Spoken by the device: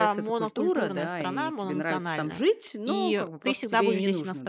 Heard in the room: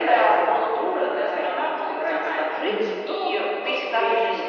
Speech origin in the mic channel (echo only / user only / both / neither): both